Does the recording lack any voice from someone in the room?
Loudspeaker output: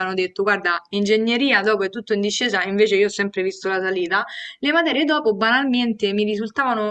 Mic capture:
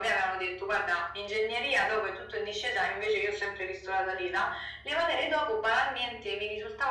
Yes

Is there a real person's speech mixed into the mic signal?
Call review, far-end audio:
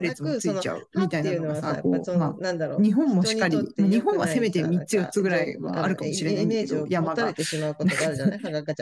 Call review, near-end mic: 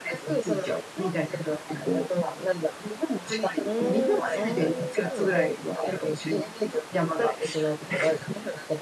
Yes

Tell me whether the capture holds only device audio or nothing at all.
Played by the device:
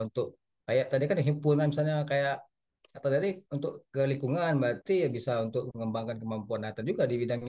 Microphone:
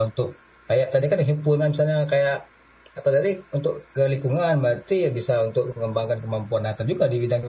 Yes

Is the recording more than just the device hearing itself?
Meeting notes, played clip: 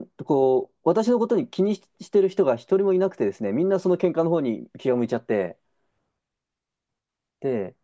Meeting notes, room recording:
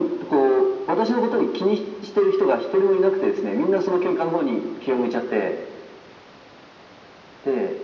No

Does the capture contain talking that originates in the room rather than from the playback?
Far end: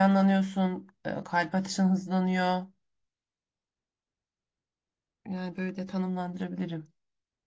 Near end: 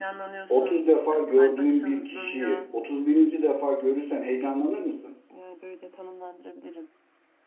Yes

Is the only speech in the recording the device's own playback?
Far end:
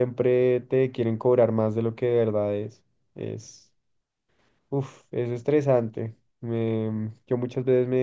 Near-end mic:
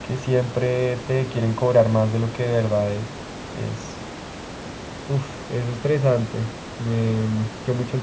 Yes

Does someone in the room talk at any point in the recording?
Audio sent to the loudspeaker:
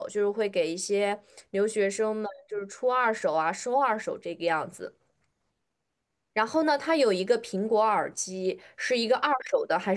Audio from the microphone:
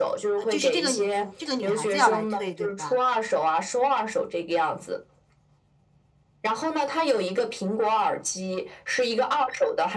Yes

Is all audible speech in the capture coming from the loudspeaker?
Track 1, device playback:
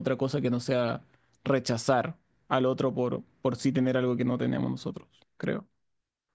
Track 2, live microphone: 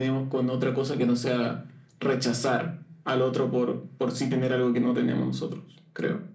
Yes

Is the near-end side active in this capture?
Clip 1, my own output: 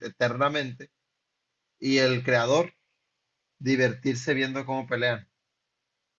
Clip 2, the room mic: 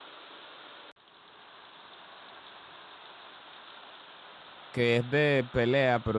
Yes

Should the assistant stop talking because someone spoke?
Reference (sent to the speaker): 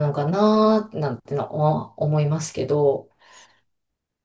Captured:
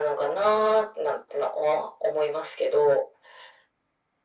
No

